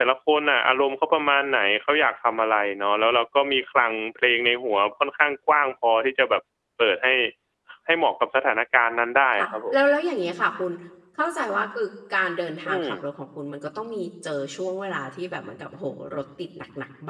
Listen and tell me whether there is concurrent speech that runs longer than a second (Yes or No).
No